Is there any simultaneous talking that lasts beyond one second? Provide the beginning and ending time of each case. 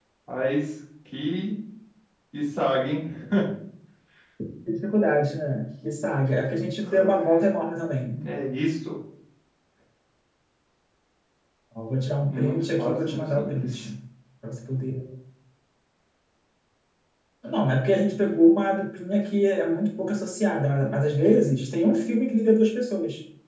12.3-13.9

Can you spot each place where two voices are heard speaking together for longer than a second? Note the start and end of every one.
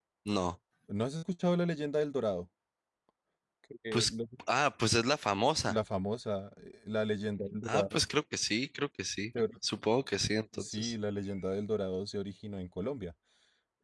none

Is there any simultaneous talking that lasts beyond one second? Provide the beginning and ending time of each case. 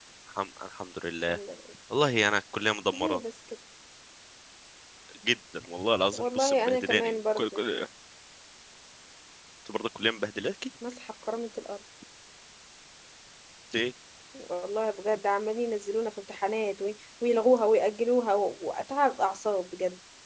6.1-7.6

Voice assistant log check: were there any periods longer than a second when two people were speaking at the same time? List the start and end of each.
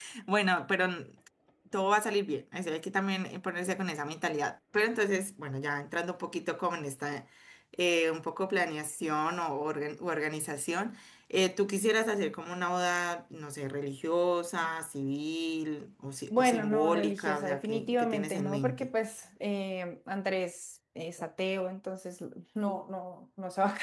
16.3-18.9

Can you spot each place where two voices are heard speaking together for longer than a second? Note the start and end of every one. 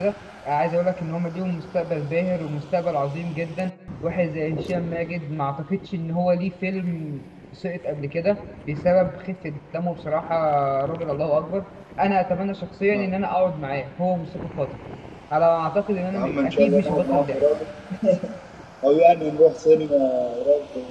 16.1-17.4

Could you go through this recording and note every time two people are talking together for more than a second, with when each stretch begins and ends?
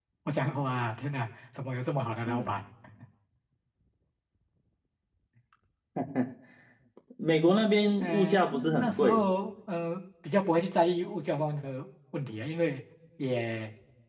8.0-9.2

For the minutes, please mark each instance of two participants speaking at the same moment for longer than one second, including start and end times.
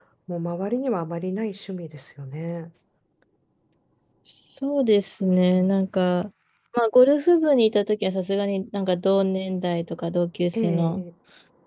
none

